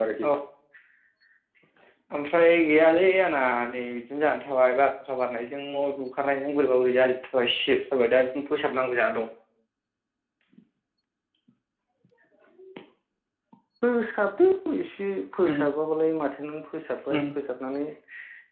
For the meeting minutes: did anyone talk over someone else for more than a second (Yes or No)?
No